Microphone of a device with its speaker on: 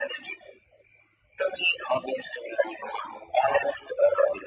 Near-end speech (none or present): none